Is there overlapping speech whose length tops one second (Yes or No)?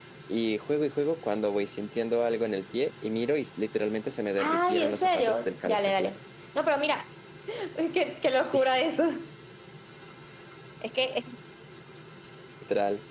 Yes